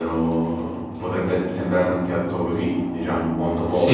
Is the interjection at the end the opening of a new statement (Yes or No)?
Yes